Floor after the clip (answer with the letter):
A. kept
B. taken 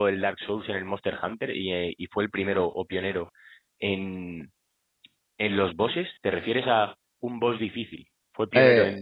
B